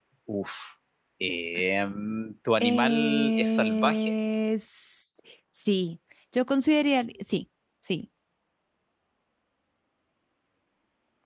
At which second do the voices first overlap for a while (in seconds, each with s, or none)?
2.6 s